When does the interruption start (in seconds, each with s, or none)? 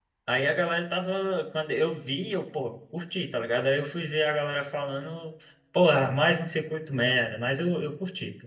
none